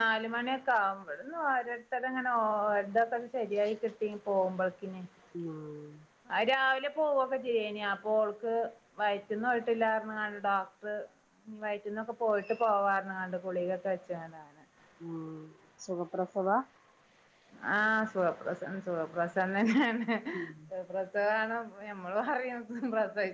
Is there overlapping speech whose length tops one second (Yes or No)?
No